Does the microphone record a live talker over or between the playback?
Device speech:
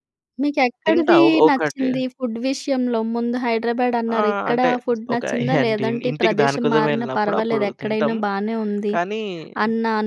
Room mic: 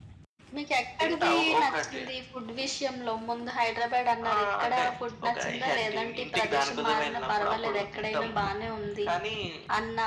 No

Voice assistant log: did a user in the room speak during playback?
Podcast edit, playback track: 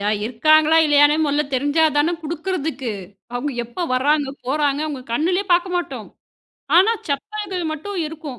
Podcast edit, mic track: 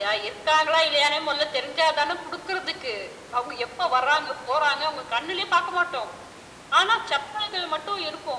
No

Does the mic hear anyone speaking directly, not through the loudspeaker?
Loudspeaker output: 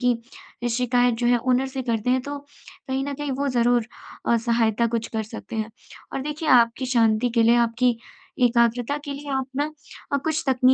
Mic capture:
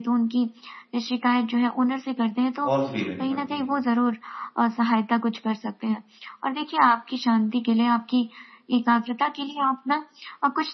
Yes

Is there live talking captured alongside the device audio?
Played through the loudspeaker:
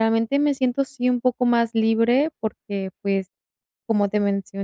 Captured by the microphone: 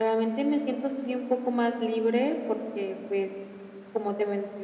No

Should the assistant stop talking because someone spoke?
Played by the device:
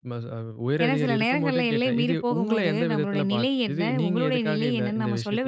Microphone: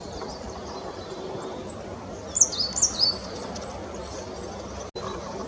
No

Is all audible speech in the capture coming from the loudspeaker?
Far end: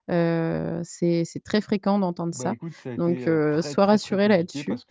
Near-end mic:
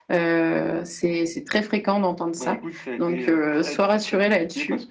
Yes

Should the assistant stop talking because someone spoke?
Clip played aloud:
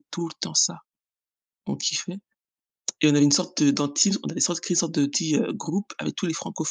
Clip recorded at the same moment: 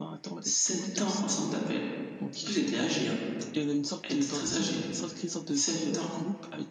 Yes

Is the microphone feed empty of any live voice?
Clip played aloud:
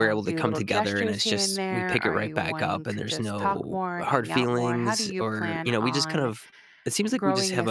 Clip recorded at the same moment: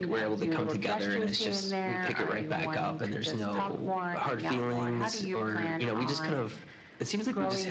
Yes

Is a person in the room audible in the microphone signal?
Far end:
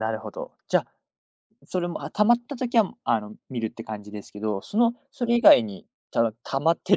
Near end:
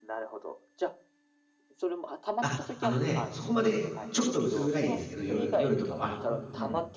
Yes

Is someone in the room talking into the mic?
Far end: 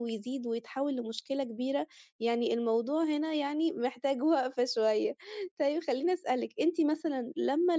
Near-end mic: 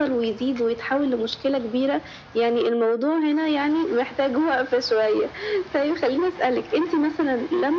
No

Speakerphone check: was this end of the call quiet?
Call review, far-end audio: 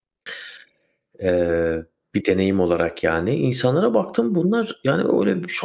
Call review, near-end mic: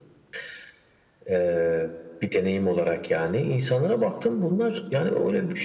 Yes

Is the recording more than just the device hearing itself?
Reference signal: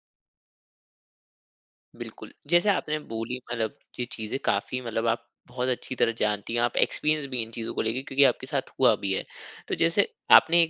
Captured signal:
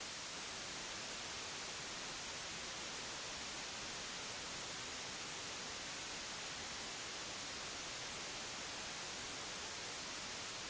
No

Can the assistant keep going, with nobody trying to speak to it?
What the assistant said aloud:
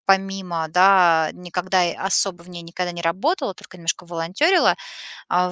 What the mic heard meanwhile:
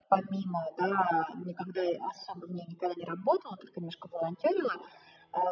Yes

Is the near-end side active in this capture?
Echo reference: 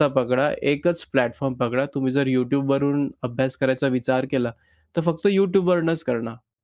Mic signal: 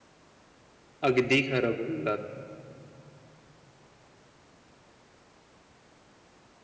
Yes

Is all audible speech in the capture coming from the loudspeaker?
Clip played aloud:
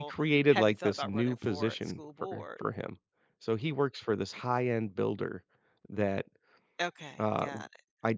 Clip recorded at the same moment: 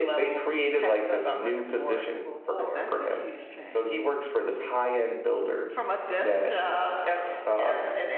No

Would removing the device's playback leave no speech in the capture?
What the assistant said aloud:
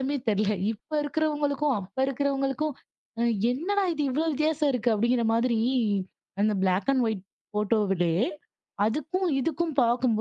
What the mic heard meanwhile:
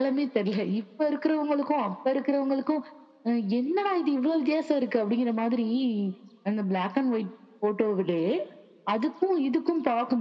Yes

